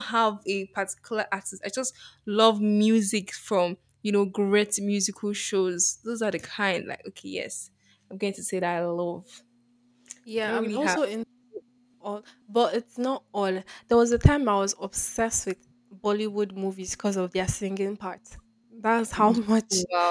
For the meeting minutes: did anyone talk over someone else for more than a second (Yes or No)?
No